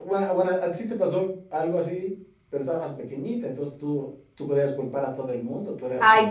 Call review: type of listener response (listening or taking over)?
taking over